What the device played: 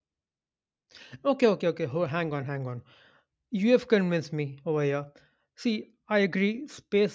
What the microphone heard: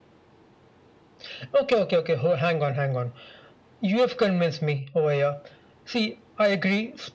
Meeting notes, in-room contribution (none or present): none